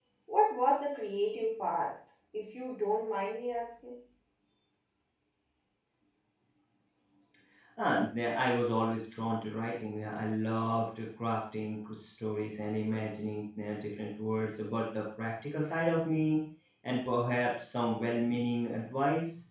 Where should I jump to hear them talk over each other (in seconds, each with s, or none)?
none